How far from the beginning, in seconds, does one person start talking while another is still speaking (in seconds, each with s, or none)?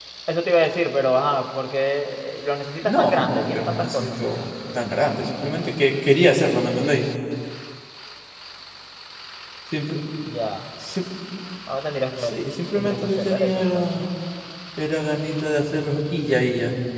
2.8 s